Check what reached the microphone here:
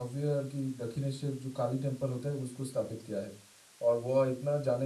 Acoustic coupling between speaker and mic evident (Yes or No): No